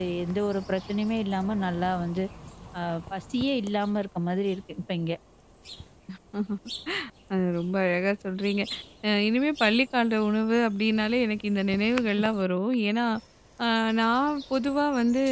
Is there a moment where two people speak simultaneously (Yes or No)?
No